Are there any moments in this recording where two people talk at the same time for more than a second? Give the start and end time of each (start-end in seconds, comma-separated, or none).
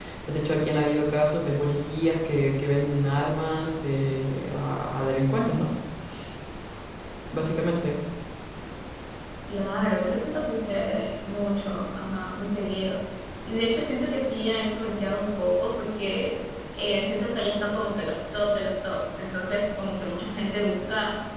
none